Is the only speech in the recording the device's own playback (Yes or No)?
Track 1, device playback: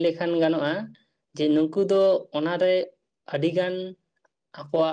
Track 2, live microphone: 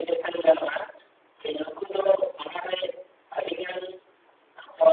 Yes